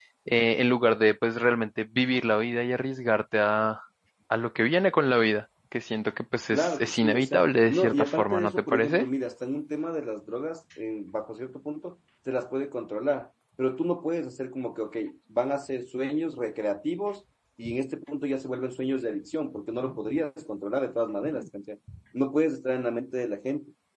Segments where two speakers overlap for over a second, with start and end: 6.5-9.0

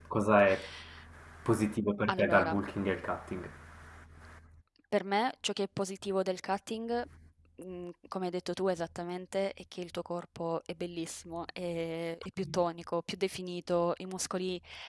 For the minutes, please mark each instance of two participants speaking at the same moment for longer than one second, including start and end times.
none

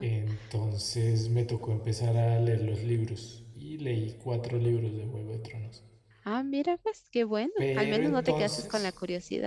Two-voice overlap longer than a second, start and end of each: 7.6-8.9

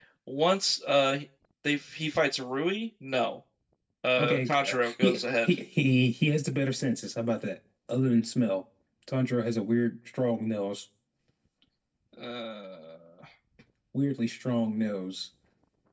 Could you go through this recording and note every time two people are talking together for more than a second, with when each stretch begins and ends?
4.2-5.6

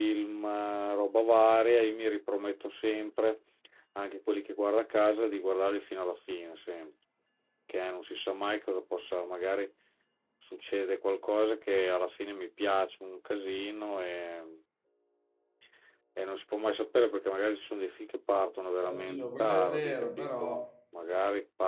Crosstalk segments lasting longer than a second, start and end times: 18.8-20.6

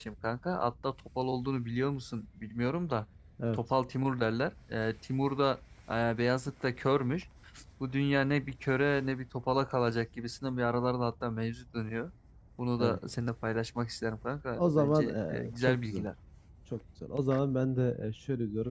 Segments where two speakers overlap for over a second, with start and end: 14.6-16.0

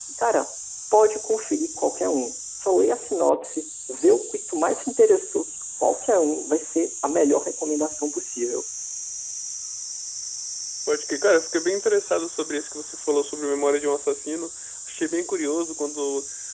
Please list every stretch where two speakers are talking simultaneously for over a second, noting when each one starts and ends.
none

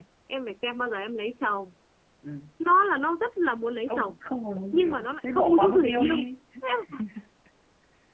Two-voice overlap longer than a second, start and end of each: 4.7-6.3

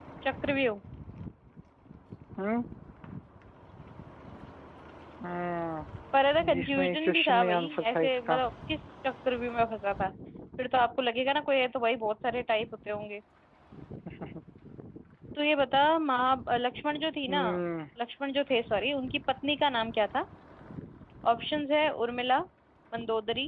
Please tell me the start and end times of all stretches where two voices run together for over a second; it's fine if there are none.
6.4-8.4

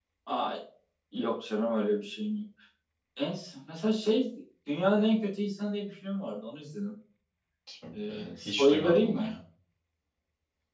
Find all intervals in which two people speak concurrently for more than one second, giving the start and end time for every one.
7.9-9.3

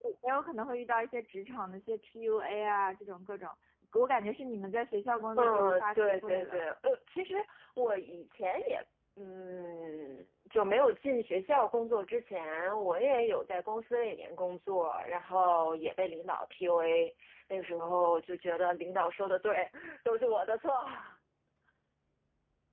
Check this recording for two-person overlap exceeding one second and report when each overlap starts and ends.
5.4-6.6

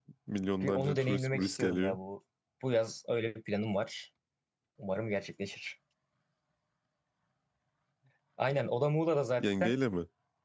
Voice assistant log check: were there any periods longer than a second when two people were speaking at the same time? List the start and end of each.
0.6-2.0

